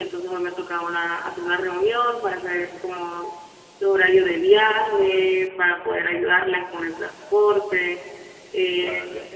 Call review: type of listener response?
listening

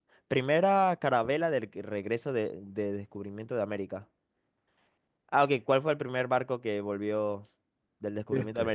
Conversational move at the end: listening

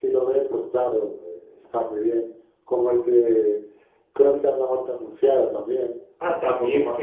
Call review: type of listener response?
taking over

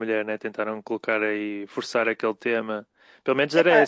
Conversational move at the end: listening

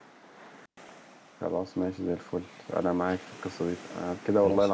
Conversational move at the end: listening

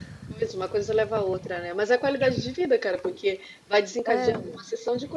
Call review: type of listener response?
listening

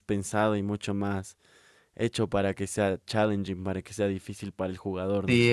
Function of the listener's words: taking over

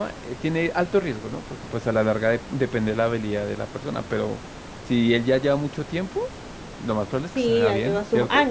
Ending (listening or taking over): taking over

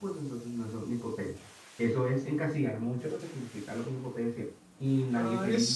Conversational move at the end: taking over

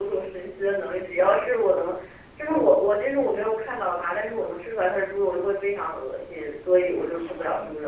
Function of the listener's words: taking over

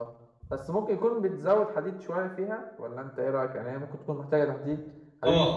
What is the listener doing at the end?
taking over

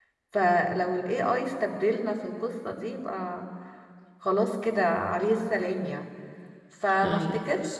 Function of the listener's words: listening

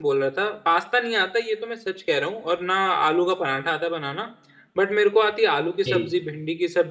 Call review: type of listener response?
listening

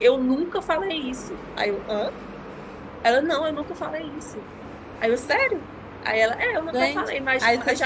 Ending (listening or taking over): taking over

